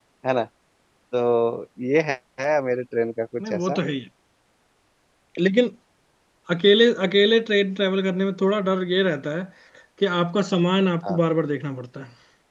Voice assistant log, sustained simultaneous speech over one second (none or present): none